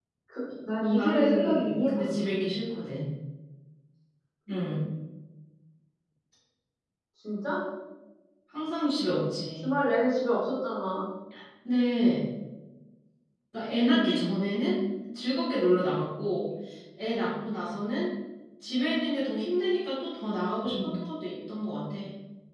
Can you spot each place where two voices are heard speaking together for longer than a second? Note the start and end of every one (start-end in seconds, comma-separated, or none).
0.8-2.3